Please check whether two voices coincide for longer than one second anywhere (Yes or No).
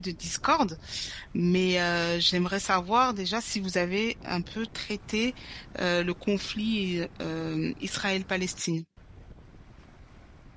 No